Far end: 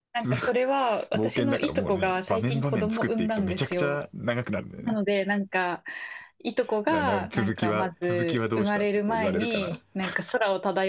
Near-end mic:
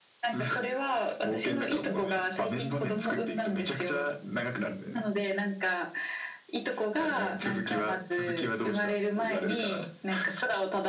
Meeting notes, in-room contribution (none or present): none